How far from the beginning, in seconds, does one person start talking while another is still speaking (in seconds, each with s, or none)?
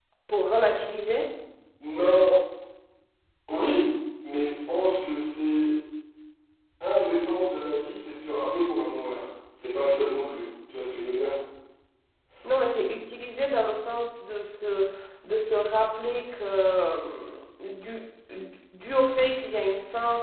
none